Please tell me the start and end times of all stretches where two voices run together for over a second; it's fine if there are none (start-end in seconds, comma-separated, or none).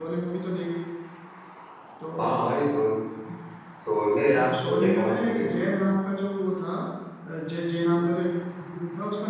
4.4-5.8